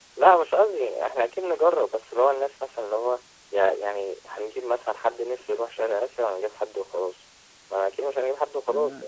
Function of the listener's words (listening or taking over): taking over